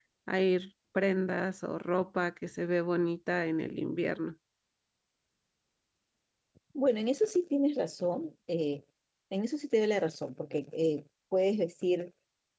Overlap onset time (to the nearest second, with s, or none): none